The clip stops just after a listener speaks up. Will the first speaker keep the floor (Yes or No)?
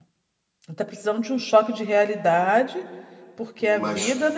Yes